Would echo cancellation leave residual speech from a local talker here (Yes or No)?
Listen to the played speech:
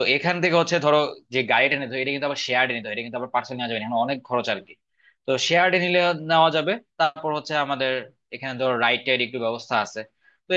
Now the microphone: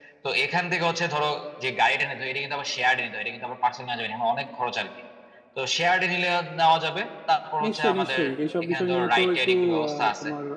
Yes